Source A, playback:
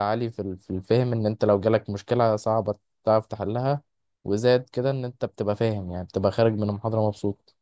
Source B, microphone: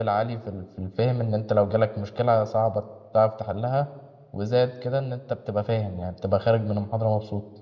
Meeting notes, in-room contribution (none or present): none